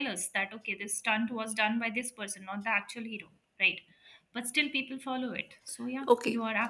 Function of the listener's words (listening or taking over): taking over